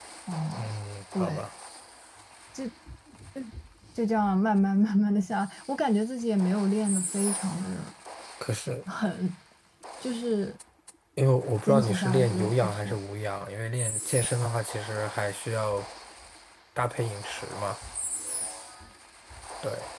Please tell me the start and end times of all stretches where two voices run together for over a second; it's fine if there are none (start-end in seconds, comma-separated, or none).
11.7-13.0